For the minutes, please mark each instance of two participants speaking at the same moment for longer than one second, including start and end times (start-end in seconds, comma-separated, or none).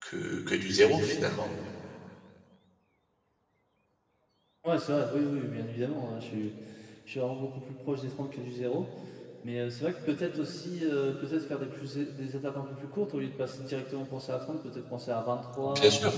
none